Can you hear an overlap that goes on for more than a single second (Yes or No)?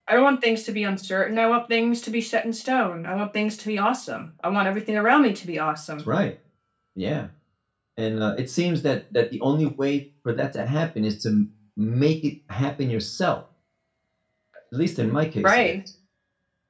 No